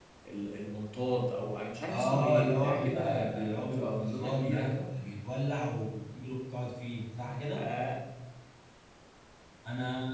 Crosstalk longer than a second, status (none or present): present